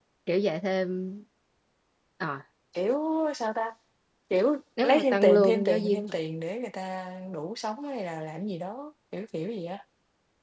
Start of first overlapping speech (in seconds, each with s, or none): 4.8 s